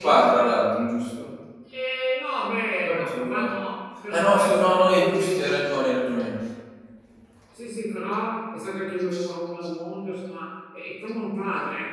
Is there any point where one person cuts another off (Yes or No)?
Yes